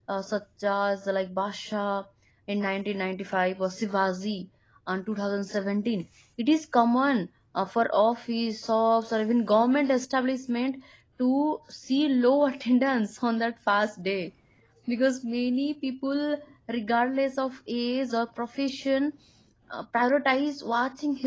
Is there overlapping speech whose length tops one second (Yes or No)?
No